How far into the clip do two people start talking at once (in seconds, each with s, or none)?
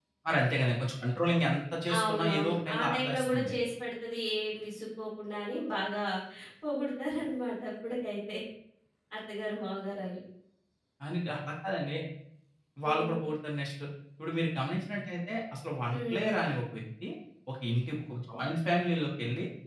2.0 s